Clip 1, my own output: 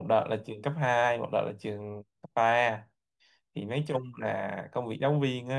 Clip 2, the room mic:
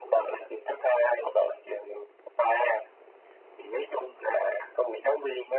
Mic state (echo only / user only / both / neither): echo only